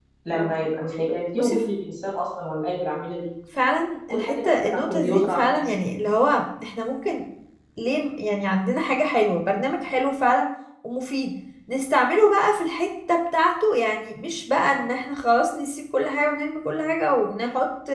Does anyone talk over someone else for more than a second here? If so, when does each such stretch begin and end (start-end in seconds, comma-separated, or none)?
4.1-5.7